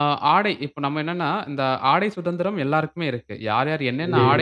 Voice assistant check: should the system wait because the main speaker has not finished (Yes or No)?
Yes